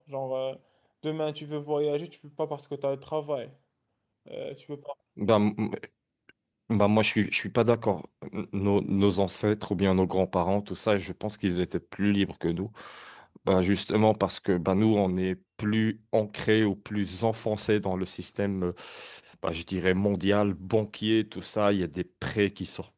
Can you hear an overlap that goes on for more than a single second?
No

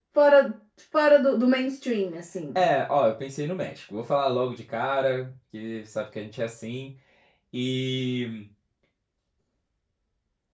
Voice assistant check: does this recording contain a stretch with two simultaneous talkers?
No

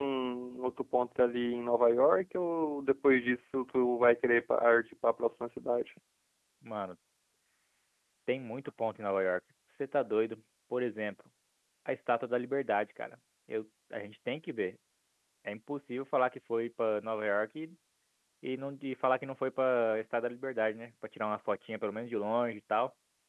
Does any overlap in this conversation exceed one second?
No

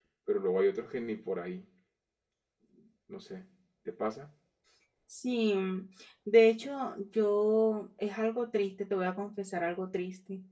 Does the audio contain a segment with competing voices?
No

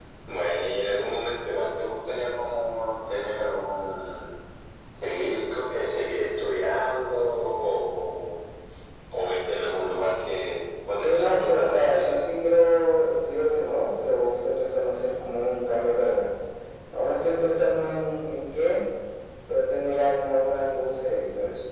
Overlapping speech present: Yes, from 10.9 s

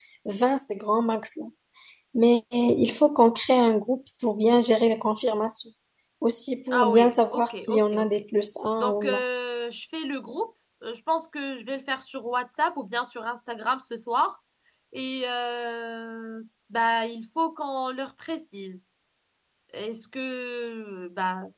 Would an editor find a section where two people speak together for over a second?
Yes, from 6.7 s

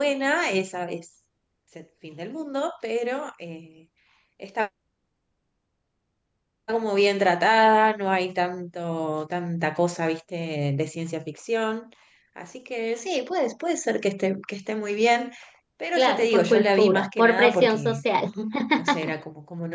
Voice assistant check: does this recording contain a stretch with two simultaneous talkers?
Yes, from 16.0 s

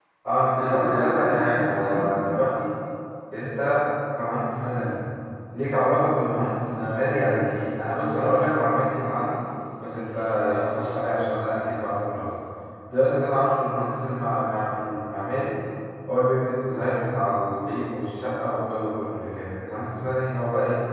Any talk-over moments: Yes, from 0.5 s

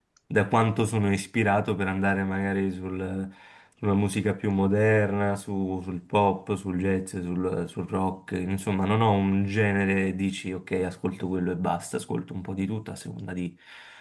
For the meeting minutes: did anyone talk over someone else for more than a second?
No

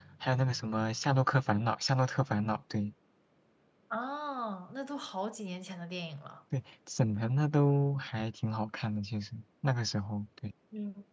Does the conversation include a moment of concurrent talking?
No

